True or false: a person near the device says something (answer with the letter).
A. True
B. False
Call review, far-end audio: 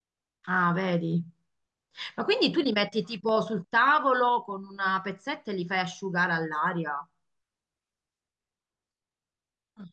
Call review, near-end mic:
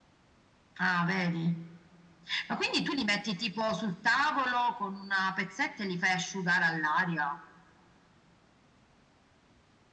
B